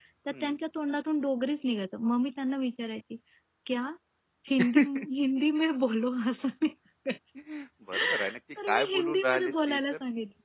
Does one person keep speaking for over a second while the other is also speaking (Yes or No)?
Yes